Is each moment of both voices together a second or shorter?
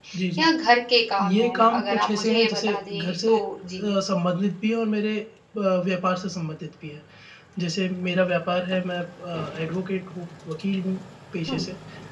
No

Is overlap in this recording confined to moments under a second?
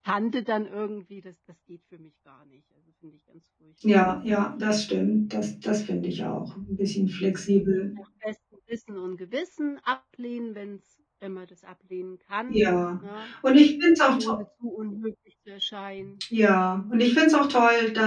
Yes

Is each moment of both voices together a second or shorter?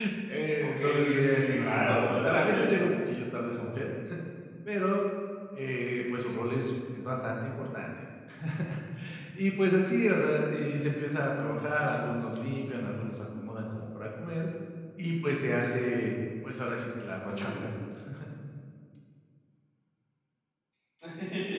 No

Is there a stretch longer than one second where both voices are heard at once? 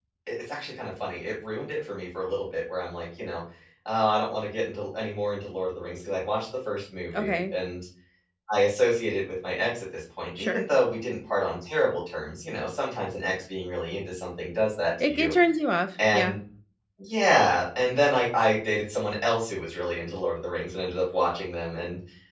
No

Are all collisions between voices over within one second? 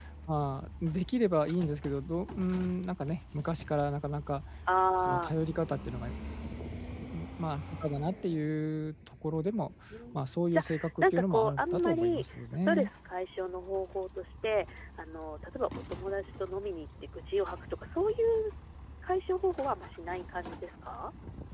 No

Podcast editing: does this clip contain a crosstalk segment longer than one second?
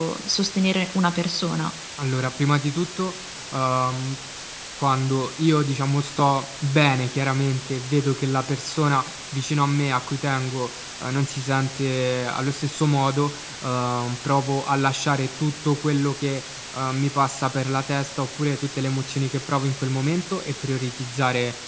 No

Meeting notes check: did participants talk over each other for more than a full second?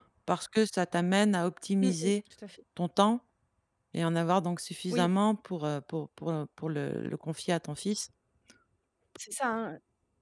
No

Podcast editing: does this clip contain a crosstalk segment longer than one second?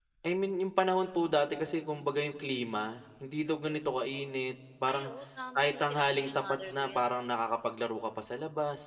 Yes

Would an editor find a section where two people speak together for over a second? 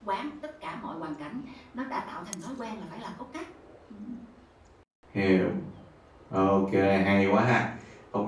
No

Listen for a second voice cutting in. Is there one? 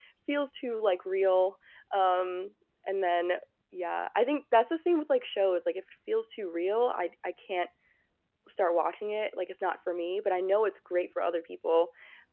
No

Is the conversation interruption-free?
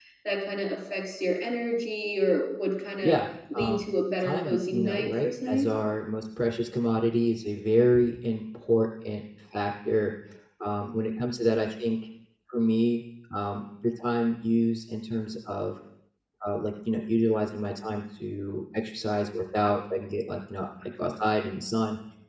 No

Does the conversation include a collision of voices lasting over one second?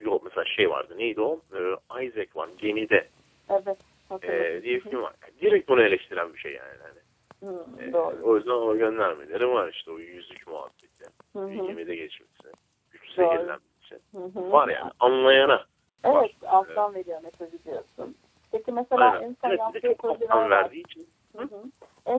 Yes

